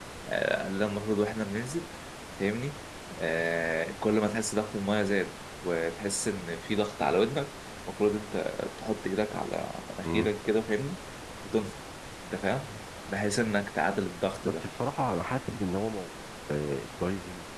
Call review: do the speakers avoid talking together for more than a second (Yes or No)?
Yes